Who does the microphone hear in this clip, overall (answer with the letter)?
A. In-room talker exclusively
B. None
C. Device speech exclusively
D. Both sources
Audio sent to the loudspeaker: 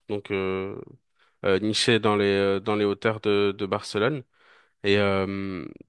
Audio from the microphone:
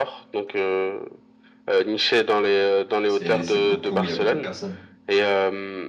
D